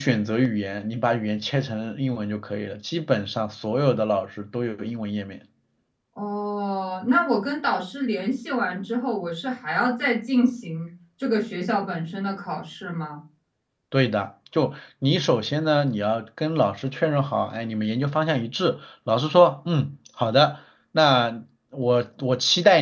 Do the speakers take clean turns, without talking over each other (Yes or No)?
Yes